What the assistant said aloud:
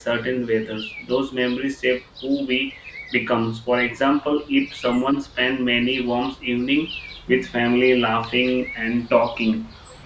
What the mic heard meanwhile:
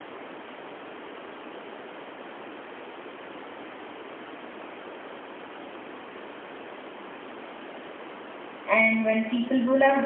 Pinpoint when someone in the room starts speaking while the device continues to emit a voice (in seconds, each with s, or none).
8.6 s